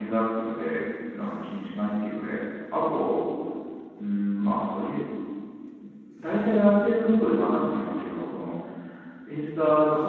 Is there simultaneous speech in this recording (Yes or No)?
No